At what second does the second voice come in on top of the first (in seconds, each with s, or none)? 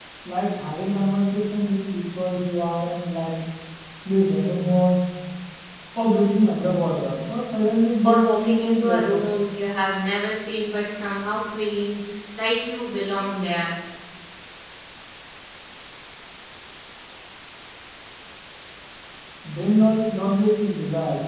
8.0 s